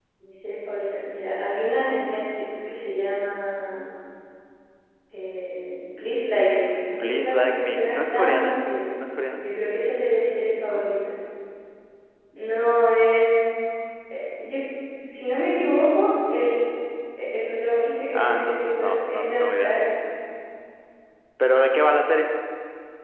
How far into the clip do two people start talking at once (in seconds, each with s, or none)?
7.0 s